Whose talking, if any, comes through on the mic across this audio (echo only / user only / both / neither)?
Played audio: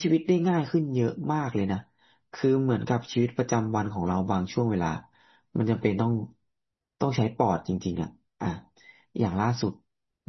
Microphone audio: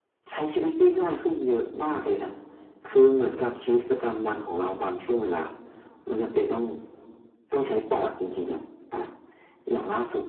echo only